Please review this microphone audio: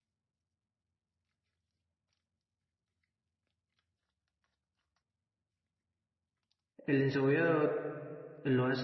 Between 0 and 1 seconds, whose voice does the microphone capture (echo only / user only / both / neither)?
neither